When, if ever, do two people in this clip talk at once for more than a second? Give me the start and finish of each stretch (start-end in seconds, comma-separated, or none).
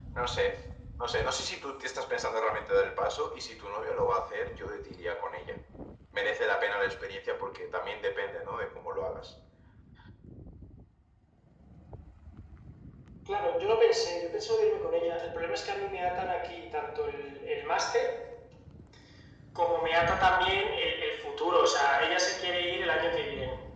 none